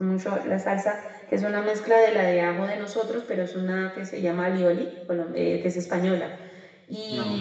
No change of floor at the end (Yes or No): Yes